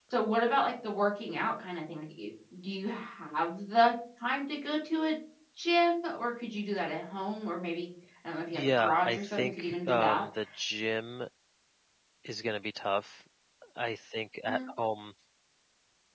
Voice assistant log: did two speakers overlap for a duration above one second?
Yes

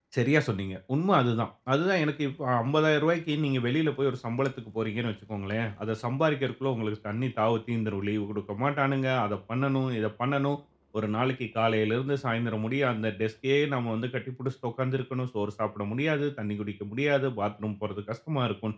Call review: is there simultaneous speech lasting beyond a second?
No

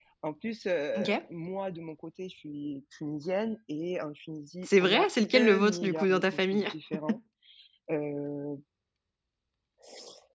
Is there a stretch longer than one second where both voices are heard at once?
Yes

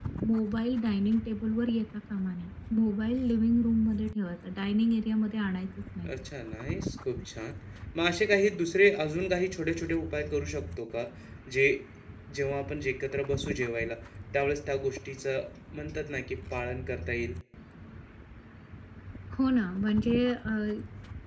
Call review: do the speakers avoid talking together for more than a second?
Yes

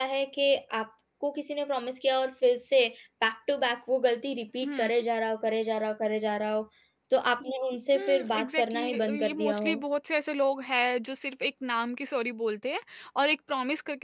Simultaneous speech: Yes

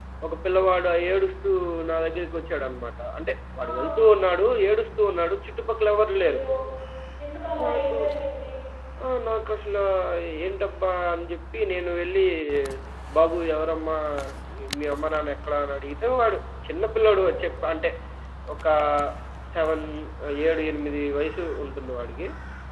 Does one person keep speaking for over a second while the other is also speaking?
No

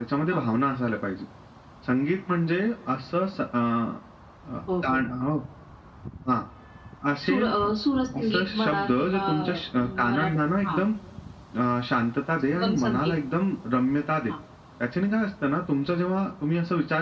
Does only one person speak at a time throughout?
No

